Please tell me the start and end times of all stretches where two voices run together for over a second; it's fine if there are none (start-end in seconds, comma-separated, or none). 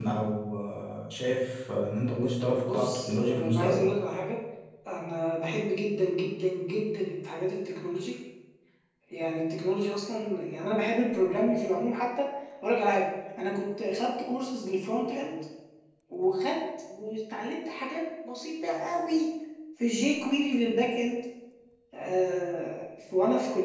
2.6-3.8